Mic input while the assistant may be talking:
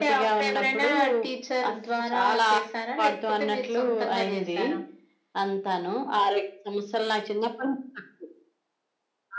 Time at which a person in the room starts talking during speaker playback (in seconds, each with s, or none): none